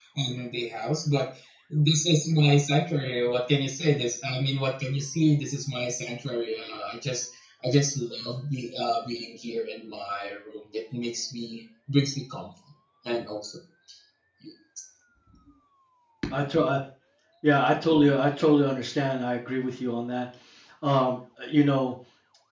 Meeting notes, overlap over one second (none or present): none